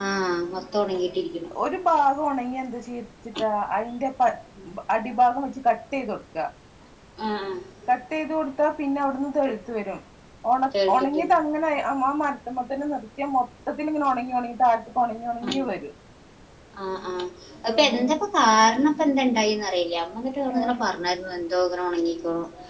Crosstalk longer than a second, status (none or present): none